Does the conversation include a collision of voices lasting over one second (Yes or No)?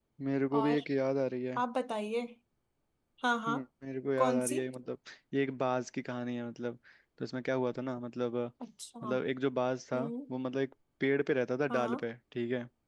No